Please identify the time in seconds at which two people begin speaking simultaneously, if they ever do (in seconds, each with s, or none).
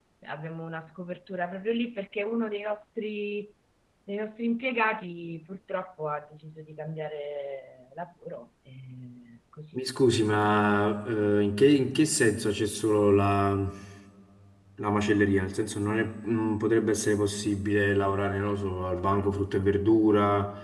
none